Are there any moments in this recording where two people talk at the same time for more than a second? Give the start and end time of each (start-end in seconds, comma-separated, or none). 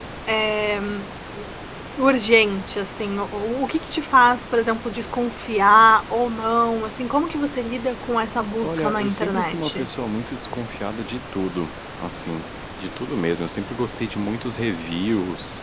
8.6-9.9